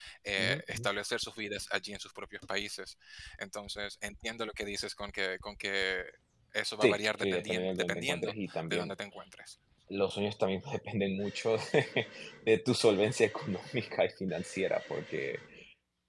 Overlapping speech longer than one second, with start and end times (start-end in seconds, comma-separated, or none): 6.8-8.9